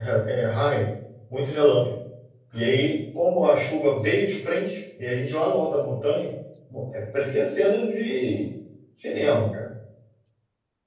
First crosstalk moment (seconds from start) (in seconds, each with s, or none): none